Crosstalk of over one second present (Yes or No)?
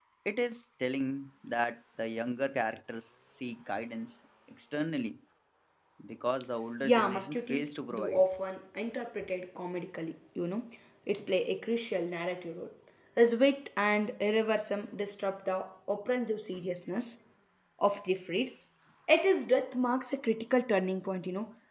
Yes